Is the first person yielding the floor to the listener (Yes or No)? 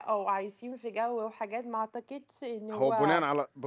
Yes